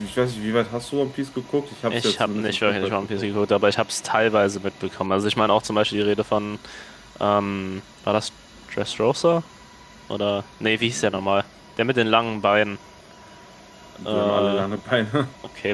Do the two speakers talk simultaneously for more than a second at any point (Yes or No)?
Yes